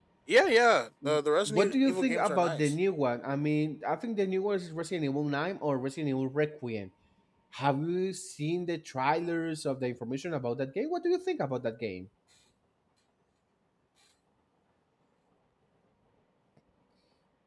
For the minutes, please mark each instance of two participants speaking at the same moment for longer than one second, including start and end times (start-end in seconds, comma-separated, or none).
1.5-2.7